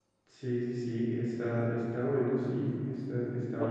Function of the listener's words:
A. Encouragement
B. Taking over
B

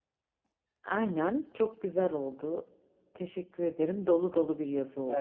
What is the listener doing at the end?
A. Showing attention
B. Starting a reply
B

